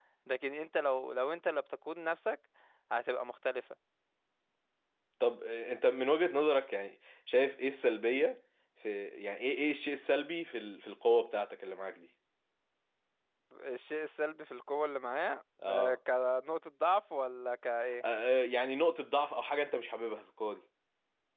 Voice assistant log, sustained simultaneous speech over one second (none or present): none